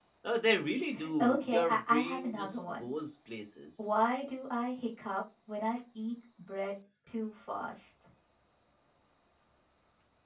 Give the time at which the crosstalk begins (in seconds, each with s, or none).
1.2 s